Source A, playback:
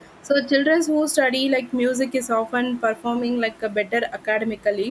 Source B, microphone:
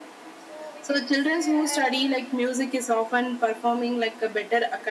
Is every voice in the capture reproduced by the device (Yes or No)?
No